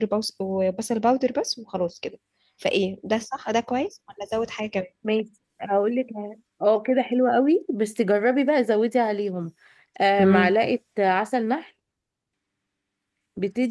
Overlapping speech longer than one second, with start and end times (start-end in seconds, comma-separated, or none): none